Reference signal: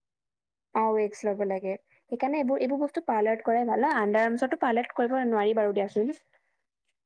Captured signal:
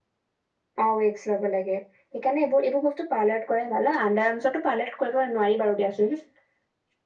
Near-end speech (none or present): none